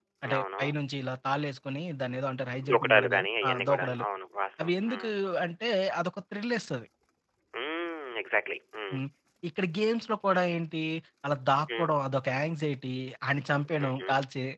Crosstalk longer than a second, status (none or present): present